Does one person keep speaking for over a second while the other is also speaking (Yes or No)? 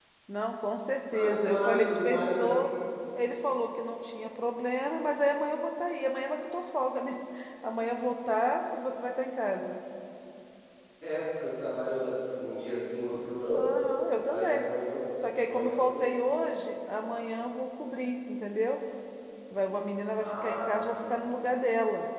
Yes